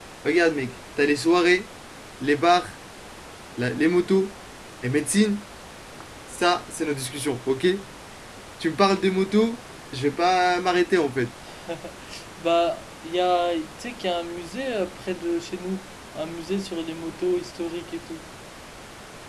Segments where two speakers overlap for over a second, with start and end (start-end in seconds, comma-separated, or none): none